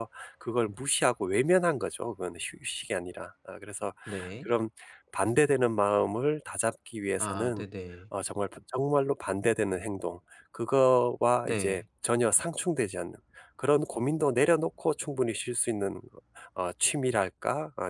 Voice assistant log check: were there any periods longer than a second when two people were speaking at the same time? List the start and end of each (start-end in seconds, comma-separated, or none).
none